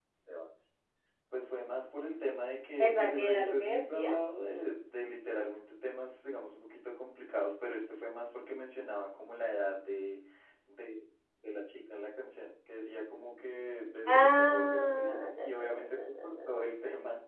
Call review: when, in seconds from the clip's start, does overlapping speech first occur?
3 s

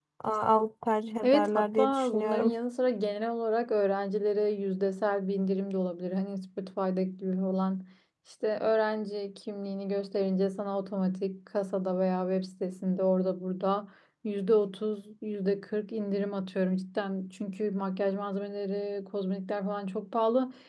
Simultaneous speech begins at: 1 s

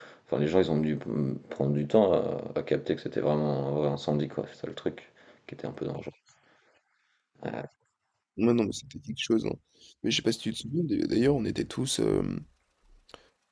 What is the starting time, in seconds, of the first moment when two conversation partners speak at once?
none

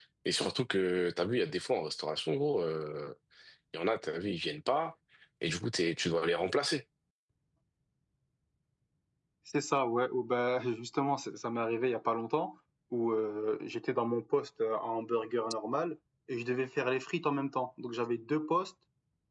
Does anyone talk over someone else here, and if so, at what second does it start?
none

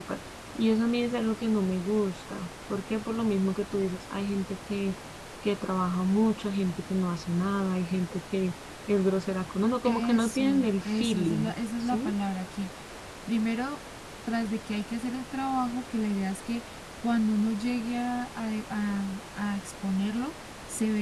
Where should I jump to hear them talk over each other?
10 s

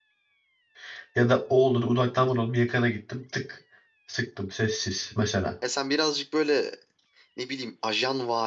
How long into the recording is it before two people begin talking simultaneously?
none

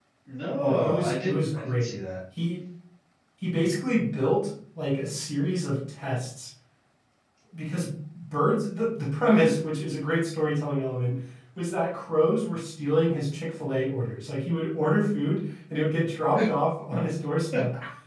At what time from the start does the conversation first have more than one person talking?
1 s

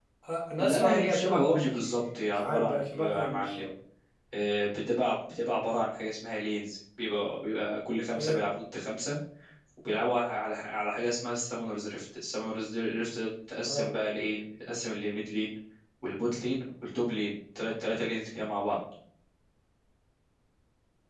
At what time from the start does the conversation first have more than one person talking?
1 s

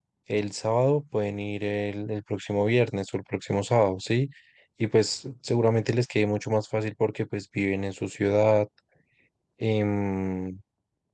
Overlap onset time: none

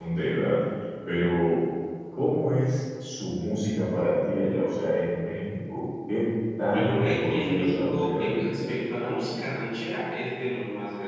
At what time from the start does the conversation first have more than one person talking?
7 s

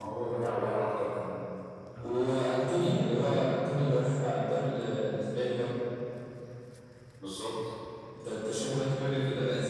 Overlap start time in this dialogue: none

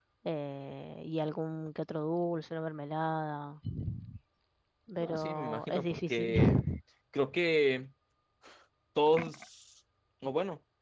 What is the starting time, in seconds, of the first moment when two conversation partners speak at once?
5 s

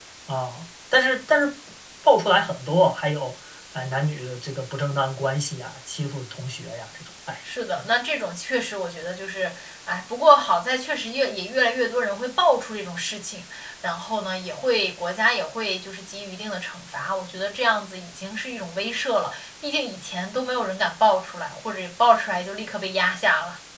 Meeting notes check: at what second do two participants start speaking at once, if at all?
none

